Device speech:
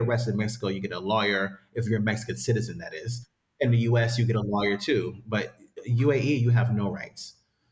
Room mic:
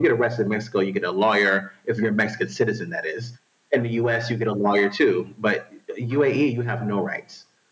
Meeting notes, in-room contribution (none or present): none